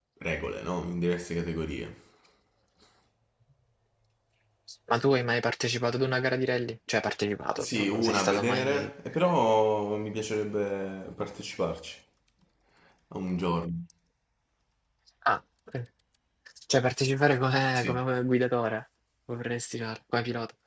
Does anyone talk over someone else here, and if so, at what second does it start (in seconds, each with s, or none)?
7.6 s